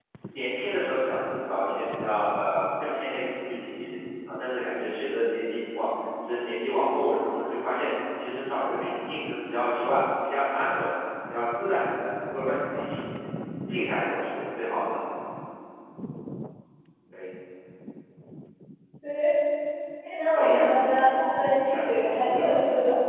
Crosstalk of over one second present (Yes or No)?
Yes